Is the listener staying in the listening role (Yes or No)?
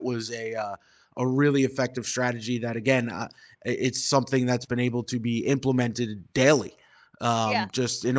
Yes